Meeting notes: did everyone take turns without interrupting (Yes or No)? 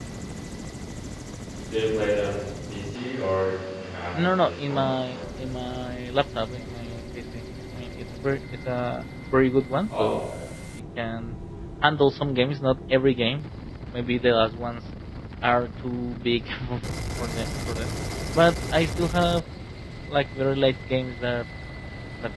No